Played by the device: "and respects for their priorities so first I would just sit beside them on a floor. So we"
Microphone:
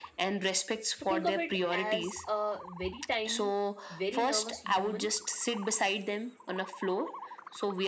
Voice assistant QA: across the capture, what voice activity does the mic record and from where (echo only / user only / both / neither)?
both